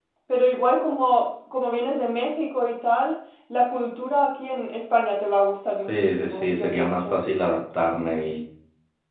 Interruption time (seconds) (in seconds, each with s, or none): 5.9 s